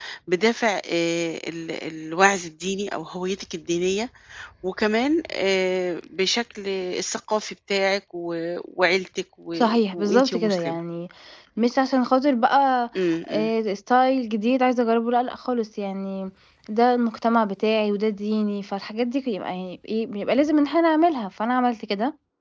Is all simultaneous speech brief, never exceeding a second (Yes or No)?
No